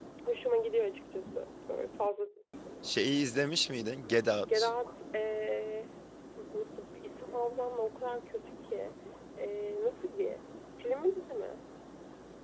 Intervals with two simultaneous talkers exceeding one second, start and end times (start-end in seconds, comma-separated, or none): none